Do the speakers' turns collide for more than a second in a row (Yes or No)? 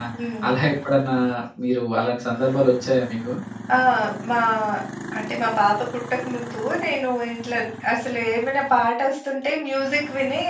No